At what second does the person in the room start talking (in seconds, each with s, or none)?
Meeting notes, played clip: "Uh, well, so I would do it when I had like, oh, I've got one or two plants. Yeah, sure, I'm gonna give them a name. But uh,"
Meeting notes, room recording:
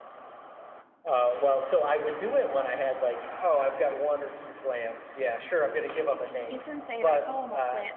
6.5 s